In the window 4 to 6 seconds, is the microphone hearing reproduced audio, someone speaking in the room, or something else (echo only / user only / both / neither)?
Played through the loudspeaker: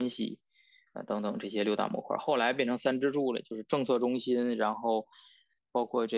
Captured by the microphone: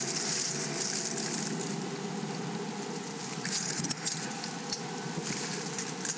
neither